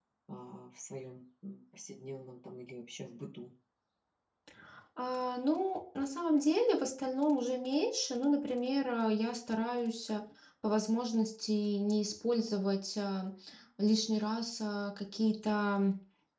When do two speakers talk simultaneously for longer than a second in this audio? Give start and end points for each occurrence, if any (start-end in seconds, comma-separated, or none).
none